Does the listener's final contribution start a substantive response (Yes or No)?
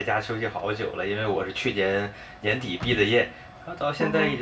No